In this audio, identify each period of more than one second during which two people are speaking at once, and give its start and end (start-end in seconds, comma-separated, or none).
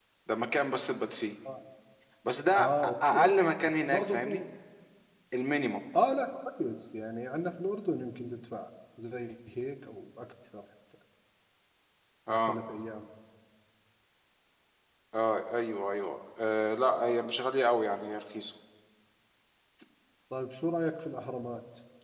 2.6-4.2